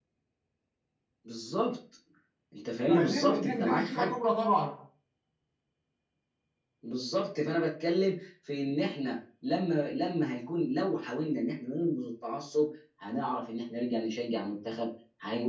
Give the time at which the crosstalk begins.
2.9 s

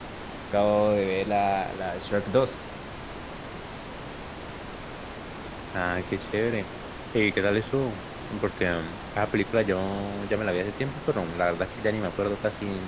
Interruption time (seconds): none

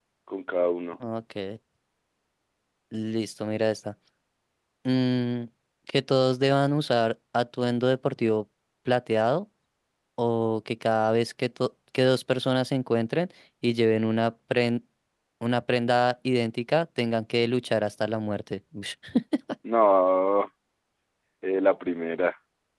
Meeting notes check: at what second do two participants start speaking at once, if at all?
none

